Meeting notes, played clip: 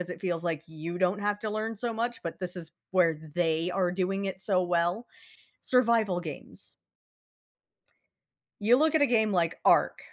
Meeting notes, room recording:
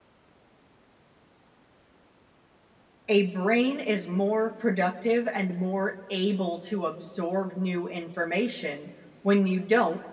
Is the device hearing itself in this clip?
No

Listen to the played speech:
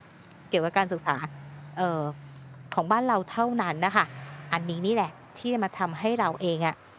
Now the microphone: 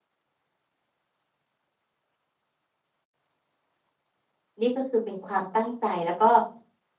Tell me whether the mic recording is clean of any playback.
Yes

